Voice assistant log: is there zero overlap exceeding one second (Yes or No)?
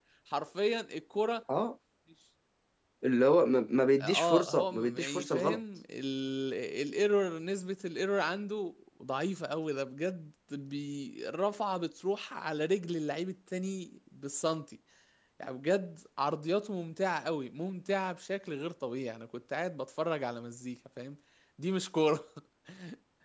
No